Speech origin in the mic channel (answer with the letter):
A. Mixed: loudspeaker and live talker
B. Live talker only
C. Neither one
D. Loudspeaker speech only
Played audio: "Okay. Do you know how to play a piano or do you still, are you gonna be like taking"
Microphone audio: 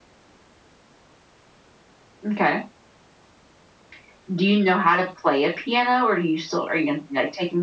D